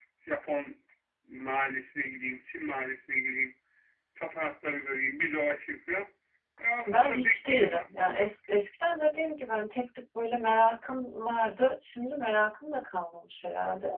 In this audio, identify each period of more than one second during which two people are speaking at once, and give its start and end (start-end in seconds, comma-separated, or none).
6.9-8.3